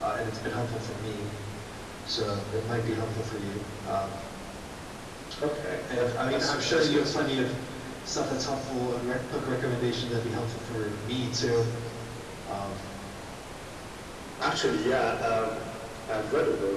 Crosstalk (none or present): present